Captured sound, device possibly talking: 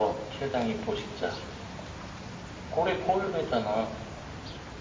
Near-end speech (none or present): none